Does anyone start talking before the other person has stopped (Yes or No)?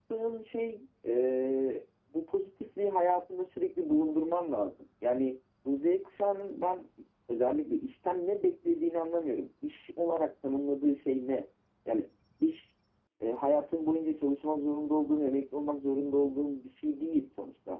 No